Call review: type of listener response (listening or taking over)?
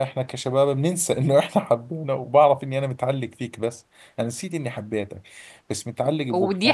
taking over